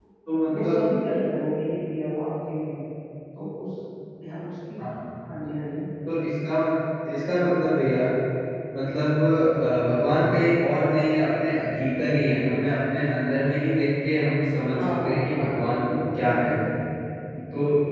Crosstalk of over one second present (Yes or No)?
Yes